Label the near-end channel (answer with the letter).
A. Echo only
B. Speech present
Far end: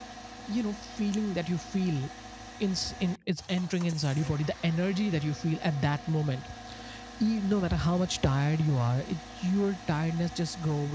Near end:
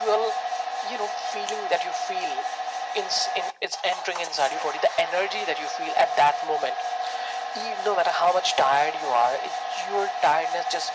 A